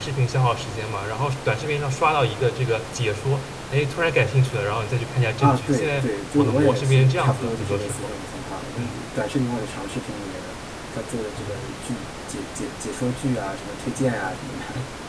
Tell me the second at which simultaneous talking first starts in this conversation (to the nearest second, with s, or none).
5 s